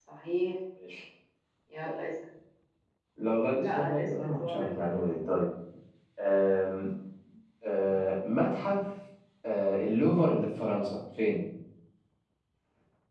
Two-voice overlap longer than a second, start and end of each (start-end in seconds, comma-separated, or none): 3.6-5.0